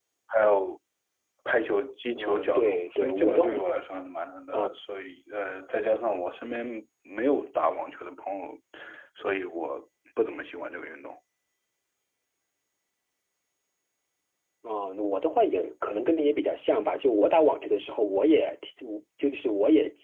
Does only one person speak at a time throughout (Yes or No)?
No